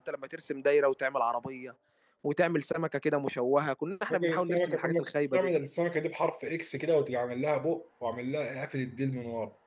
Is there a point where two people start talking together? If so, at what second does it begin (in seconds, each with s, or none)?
4.1 s